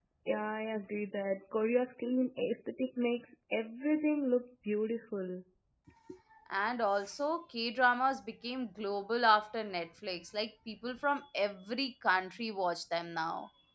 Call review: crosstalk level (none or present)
none